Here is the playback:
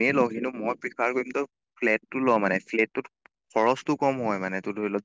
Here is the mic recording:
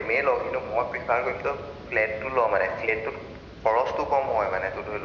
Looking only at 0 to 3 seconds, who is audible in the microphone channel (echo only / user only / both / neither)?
echo only